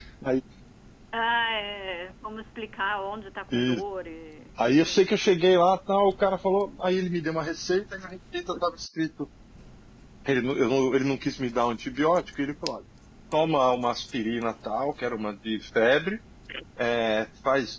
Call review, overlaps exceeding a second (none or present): none